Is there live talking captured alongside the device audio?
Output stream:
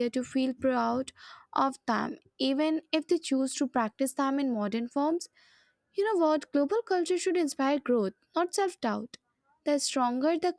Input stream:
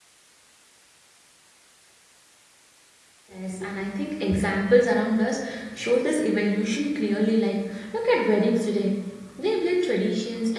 Yes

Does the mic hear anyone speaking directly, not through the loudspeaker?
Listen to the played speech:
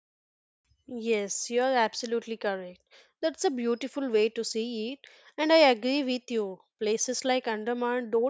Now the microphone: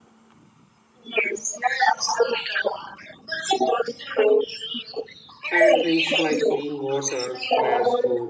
Yes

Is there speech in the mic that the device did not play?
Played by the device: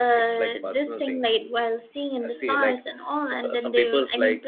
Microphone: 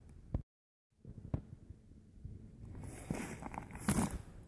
No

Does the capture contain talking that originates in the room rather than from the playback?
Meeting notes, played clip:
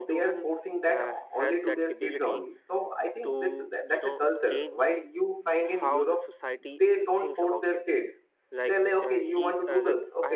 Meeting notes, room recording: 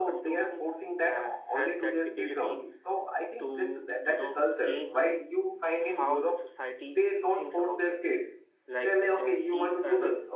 No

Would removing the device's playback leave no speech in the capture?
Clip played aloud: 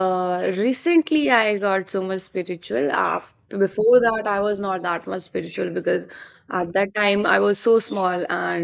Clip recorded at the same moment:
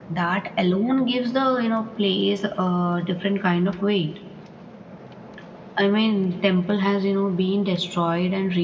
No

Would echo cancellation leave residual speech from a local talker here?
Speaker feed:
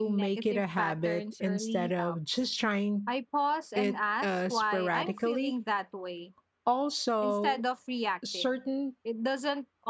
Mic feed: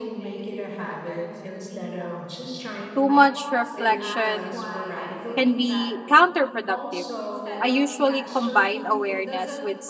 Yes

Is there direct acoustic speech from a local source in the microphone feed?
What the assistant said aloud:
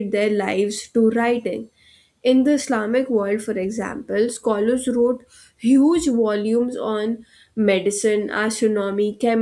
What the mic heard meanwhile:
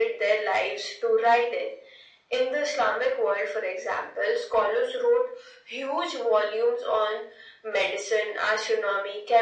No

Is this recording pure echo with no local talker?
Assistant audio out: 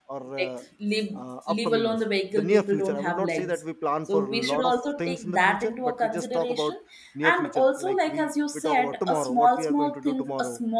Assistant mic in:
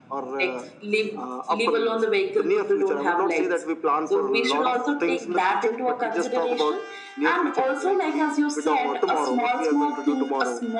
Yes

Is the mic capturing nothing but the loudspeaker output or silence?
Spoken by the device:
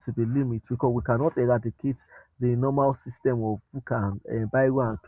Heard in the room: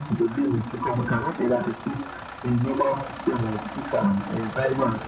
Yes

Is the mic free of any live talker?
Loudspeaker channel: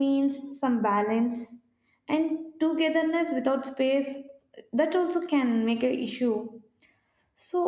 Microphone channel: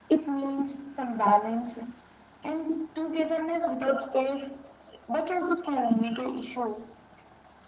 Yes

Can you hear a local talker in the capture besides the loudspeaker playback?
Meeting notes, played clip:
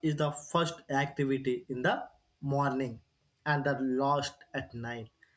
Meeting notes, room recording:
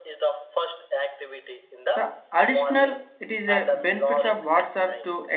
Yes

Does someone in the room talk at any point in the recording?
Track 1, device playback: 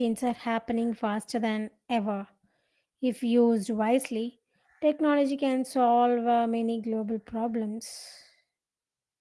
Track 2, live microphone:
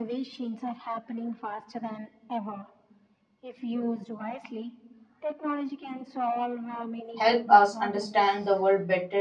Yes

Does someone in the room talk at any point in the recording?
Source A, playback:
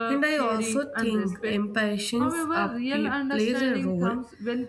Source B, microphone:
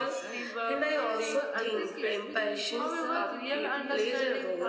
Yes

